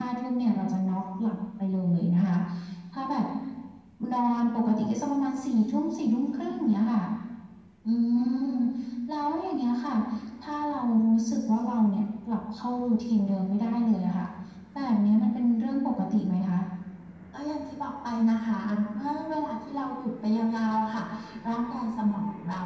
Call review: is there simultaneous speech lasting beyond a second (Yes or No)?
No